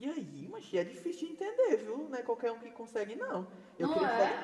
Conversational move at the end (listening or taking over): listening